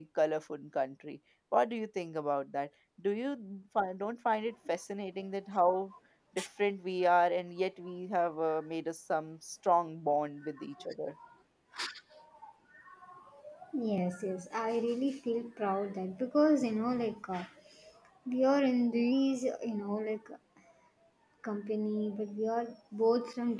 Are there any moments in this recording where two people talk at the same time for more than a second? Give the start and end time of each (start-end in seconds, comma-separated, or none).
none